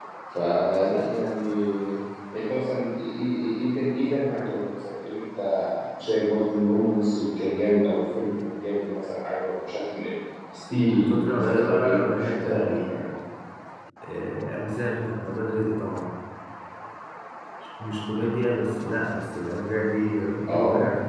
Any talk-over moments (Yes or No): Yes